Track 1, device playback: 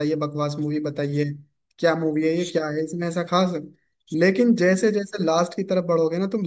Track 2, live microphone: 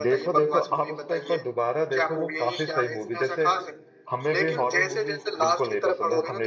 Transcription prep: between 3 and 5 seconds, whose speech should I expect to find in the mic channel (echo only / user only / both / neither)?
both